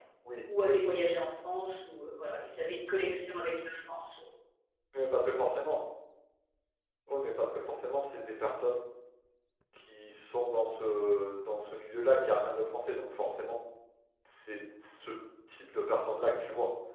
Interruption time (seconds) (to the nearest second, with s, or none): none